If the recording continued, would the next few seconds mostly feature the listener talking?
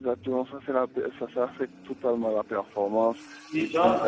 Yes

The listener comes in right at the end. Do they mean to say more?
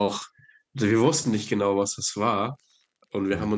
No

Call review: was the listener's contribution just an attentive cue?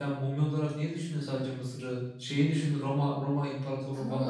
No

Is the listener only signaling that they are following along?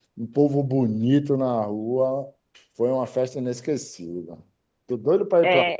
No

